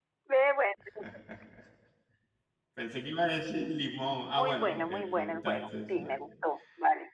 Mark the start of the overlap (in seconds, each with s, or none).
4.3 s